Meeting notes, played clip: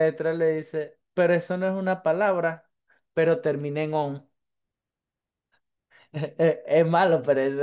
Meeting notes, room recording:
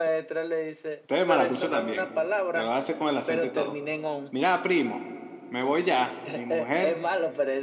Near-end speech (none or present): present